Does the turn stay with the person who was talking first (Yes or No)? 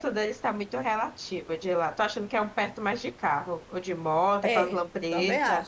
No